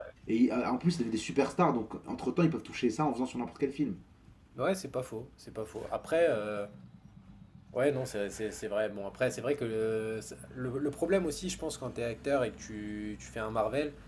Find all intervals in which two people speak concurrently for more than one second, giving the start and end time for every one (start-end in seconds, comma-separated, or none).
none